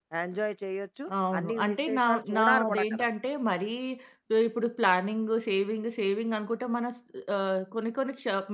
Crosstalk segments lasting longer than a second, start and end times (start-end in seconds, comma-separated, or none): 1.4-3.0